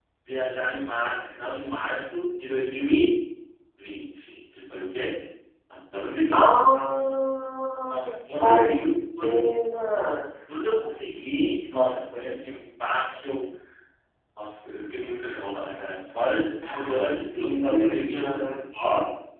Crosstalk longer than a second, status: present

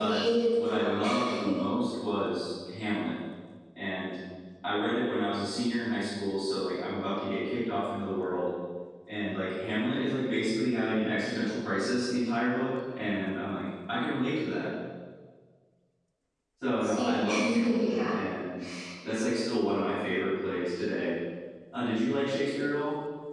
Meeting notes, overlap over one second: present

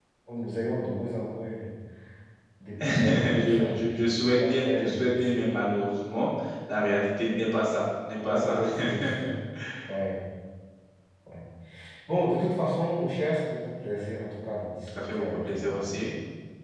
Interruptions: present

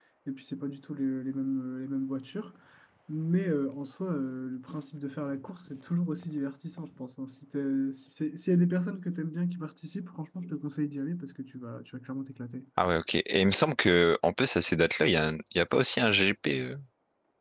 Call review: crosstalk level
none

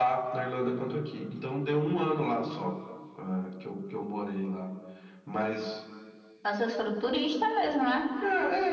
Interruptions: none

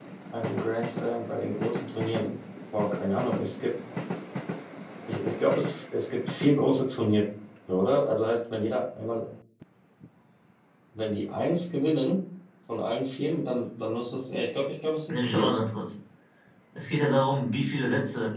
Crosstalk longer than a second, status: none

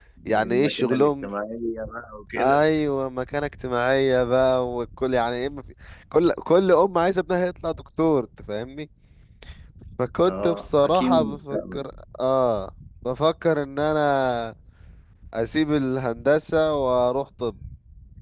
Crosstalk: present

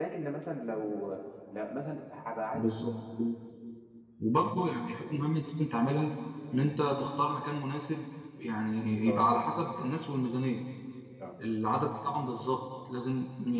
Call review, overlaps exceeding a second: none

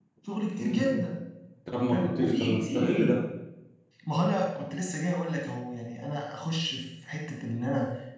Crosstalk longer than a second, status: present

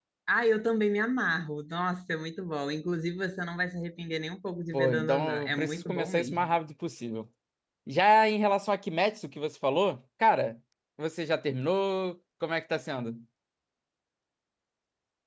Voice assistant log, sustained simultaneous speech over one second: present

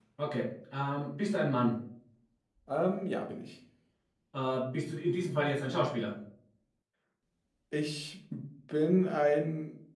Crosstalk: none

